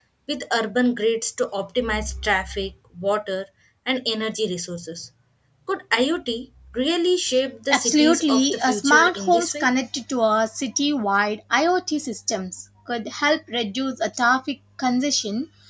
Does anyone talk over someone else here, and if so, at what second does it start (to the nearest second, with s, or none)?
8 s